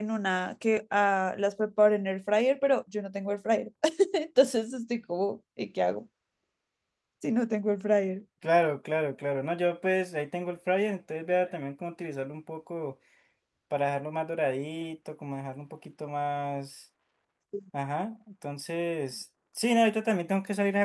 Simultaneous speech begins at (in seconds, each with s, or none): none